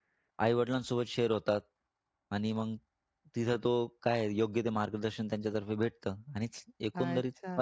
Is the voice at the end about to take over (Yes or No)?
Yes